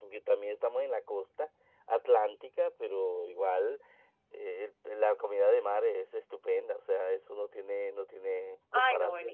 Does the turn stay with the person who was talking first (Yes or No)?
No